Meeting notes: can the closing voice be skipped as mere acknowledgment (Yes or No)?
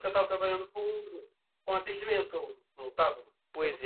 No